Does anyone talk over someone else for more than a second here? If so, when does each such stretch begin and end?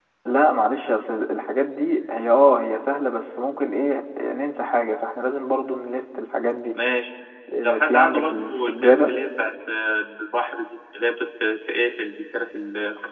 7.6-9.1

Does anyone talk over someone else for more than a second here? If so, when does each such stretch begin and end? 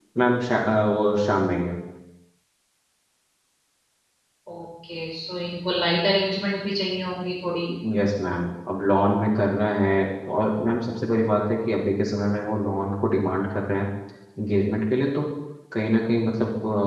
none

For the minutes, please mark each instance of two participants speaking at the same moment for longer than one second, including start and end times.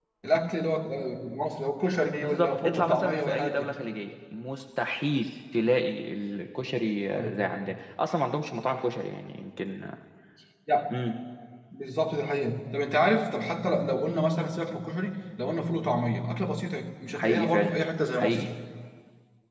2.2-3.7

